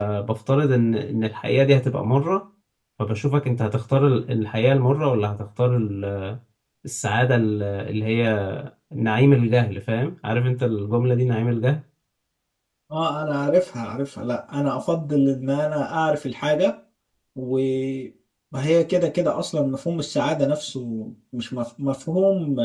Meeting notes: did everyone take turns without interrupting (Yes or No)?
Yes